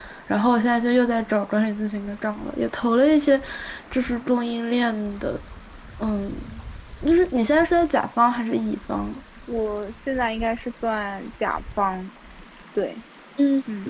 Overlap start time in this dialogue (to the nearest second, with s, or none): none